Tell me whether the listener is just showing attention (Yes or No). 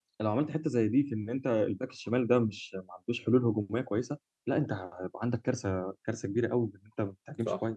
No